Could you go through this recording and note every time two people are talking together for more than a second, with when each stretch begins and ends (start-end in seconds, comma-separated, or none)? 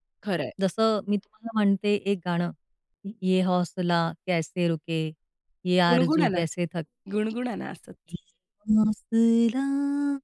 none